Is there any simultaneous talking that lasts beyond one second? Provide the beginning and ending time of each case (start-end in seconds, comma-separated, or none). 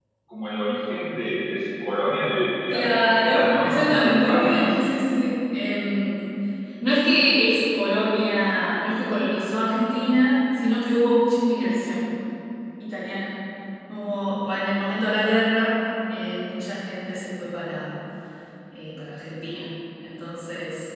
2.7-5.0